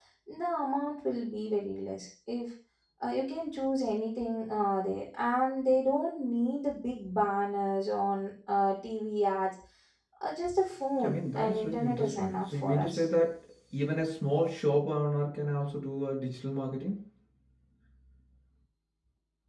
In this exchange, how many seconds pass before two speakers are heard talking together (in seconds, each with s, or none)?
11.0 s